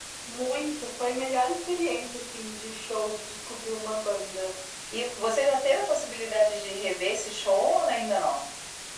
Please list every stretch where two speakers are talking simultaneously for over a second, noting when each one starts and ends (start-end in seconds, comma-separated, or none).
none